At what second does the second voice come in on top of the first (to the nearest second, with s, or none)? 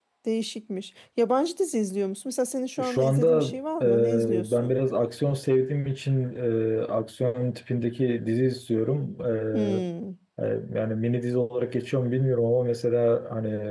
3 s